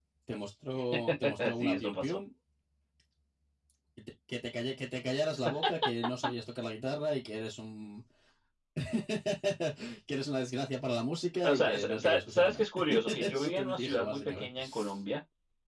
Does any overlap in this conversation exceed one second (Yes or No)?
Yes